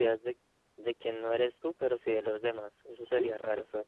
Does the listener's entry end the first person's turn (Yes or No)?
Yes